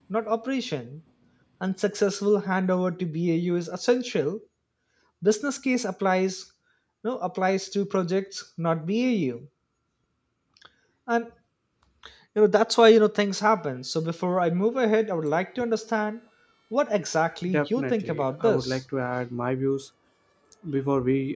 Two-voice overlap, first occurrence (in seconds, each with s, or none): 17.5 s